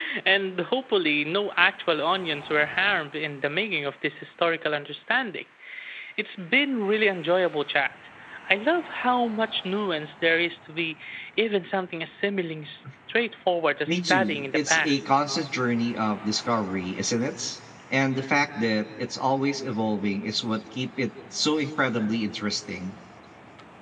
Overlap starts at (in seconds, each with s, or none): 13.9 s